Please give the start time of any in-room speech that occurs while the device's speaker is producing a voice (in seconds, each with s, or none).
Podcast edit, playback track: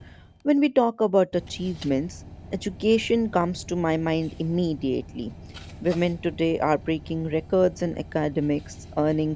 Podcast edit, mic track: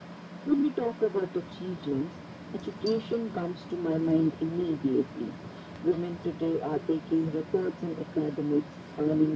none